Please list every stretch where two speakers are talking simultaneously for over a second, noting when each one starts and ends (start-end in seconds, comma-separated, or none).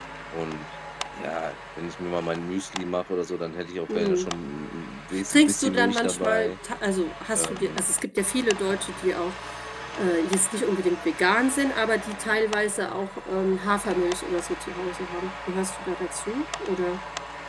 5.3-6.5